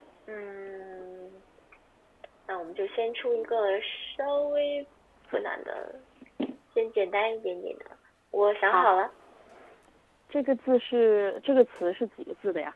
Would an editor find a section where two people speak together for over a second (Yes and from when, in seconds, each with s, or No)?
No